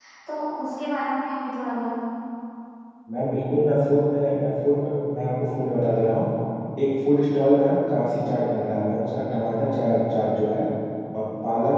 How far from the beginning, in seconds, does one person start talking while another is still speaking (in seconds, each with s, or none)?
none